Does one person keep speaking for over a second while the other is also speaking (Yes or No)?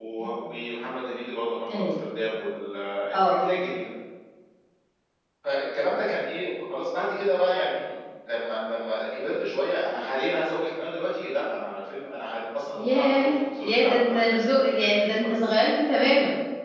Yes